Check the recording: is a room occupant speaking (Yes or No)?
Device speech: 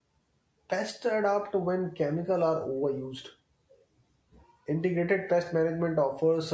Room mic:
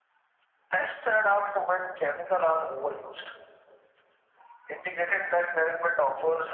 No